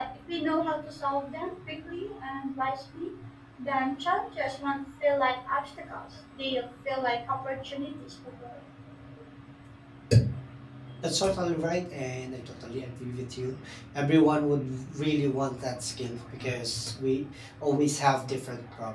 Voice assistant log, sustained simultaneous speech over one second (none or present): none